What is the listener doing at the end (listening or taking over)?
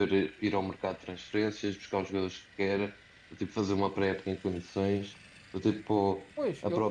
listening